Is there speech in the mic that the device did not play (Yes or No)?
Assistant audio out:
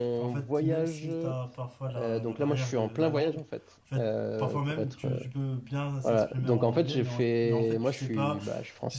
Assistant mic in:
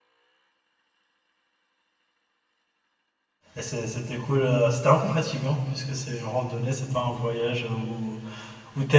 Yes